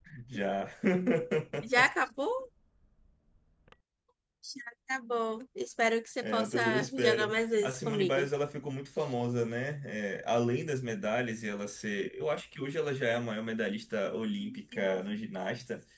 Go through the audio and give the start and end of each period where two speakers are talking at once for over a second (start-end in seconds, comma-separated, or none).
6.2-8.3